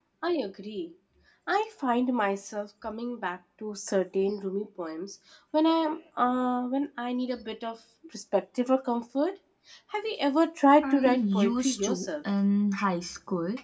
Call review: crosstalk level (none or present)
present